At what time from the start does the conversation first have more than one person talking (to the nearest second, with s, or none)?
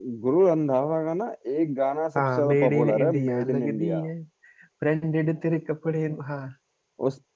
2 s